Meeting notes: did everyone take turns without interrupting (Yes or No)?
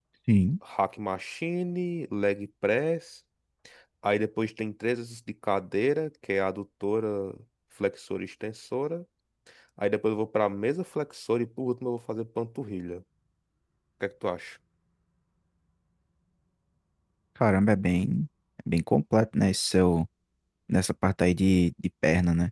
Yes